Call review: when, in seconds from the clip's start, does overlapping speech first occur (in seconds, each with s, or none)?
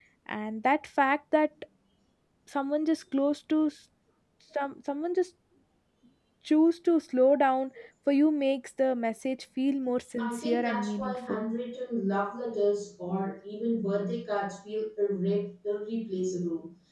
10.2 s